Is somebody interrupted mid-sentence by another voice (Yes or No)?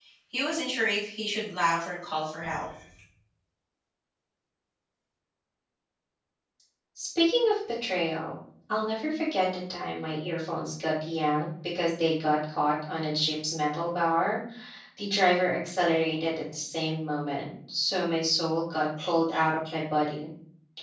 No